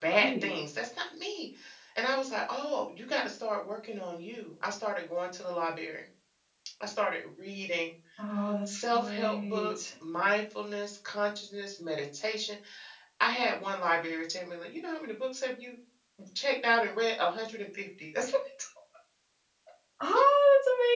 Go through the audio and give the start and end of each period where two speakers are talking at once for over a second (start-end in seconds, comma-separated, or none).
8.7-9.9